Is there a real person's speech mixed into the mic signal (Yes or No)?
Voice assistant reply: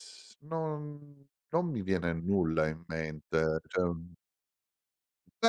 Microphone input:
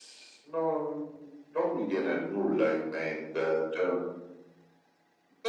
No